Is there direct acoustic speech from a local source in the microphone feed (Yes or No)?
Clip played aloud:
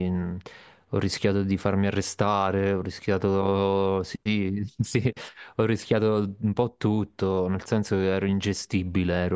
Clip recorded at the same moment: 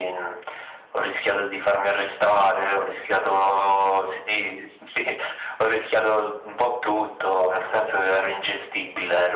No